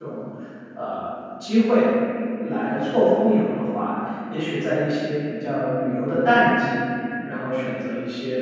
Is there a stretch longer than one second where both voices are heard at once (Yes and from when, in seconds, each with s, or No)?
No